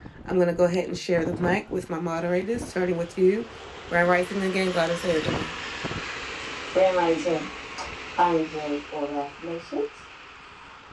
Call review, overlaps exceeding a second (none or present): none